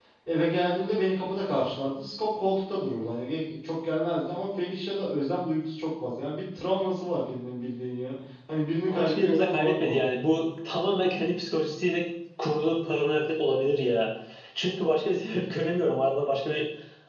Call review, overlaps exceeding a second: present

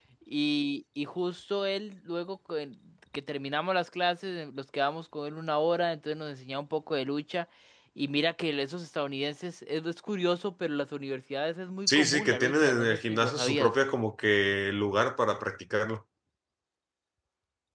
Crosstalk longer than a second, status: present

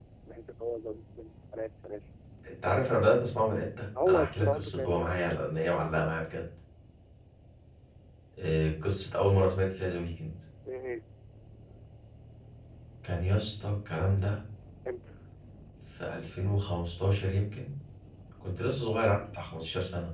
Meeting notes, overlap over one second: present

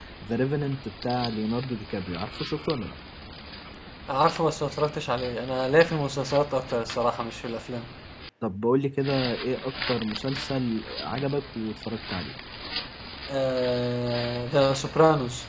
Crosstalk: none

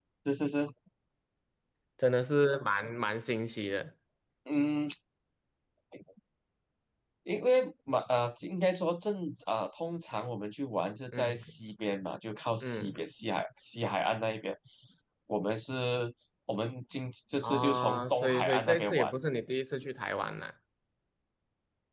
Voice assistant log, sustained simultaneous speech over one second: present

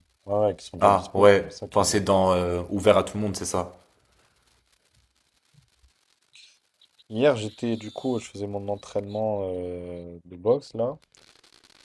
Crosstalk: present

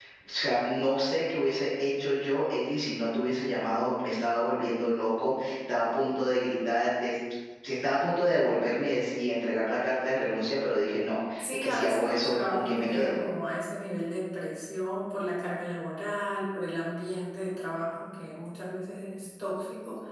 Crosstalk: present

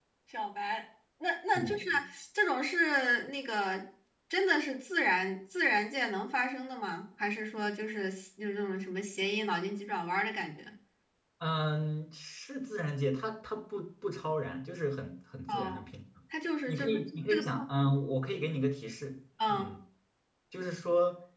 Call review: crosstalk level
present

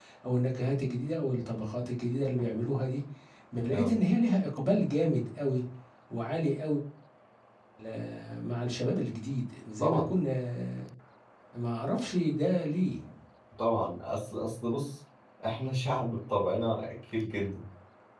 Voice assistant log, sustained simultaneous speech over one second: none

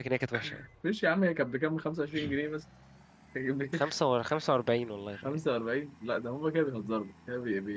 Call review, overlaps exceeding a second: none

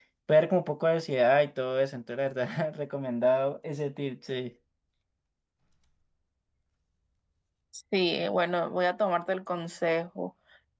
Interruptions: none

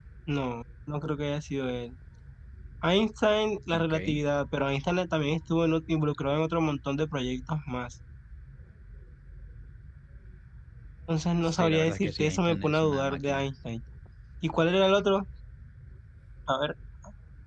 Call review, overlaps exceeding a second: present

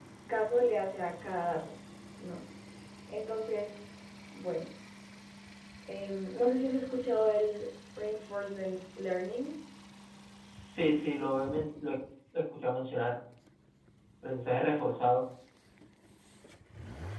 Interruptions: none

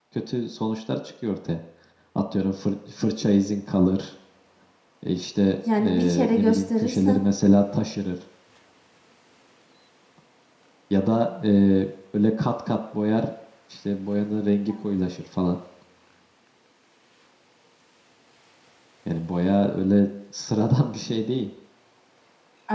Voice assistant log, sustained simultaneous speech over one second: present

